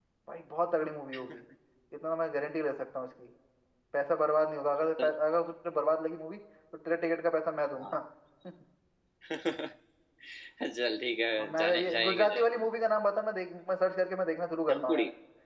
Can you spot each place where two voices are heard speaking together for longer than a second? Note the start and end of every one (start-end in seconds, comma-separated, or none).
11.4-12.7